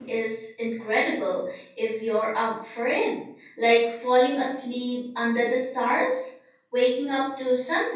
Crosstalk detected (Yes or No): No